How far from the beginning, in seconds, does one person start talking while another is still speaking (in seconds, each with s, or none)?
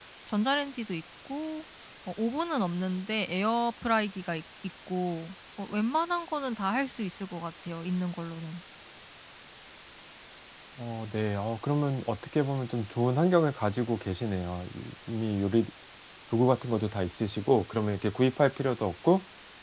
none